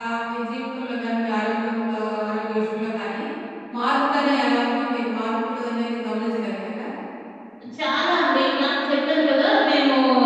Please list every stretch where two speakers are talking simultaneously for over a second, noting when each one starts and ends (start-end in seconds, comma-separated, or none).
none